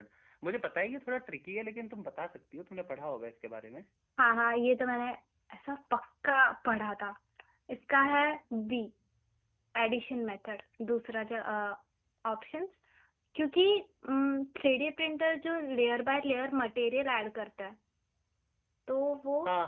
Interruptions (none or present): none